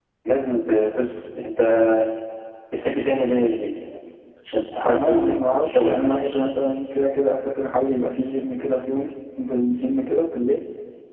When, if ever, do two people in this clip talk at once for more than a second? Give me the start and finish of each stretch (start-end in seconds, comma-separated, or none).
4.8-6.4